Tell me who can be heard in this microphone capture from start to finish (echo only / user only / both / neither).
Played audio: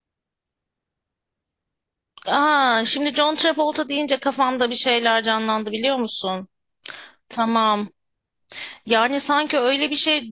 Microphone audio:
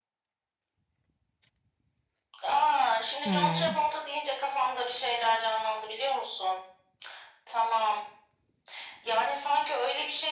both